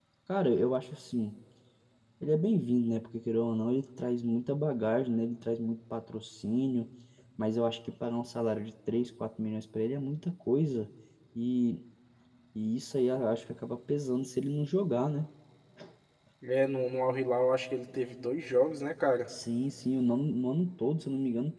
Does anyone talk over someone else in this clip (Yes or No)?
No